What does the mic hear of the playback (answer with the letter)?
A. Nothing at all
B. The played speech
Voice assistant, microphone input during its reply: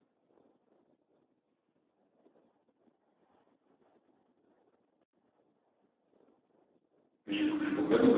A